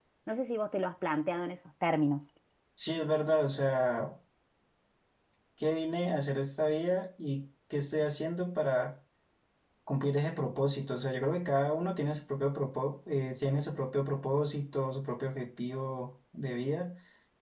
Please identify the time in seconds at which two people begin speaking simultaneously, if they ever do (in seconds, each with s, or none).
none